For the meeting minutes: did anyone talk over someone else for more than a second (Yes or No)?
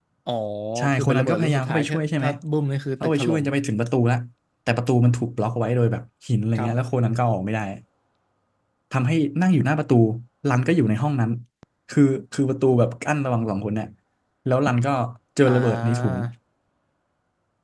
Yes